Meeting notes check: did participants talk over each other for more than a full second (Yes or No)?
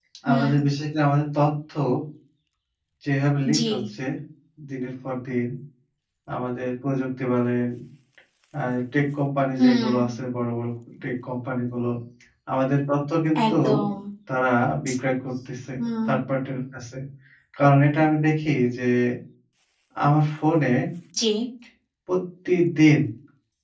No